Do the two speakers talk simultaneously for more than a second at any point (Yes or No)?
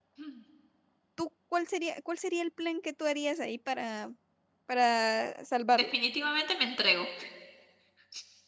No